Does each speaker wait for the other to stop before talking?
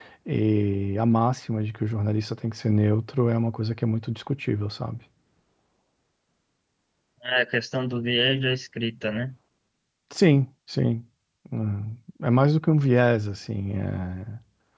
Yes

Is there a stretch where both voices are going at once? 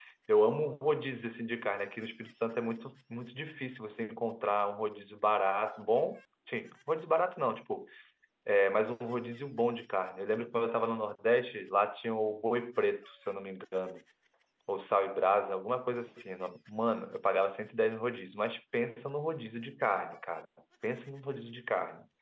No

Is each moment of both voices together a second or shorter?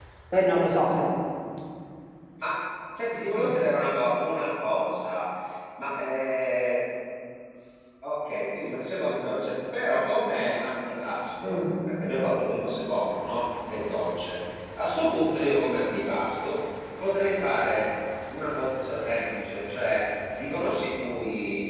Yes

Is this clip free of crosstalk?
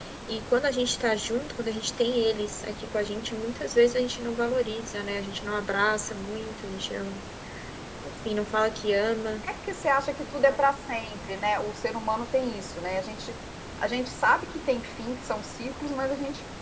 Yes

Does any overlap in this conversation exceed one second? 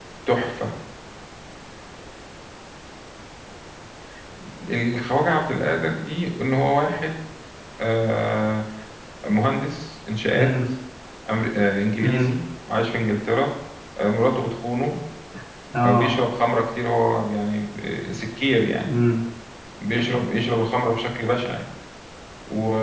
No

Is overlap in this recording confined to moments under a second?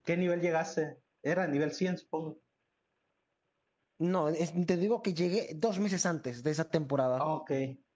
Yes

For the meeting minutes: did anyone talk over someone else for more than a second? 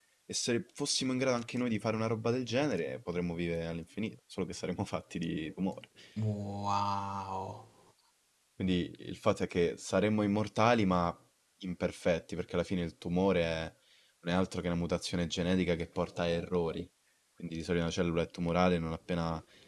No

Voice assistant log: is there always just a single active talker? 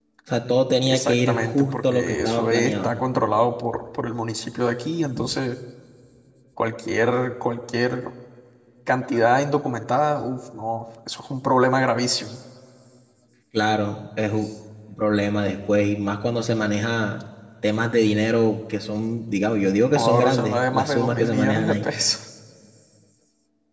No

